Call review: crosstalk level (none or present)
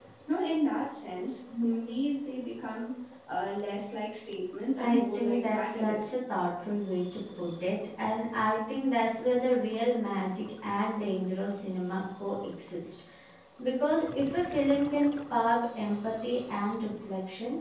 present